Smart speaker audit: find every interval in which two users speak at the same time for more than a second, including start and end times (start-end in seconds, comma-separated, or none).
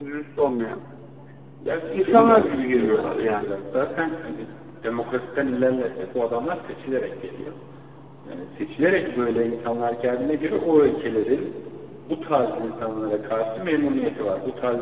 1.9-3.5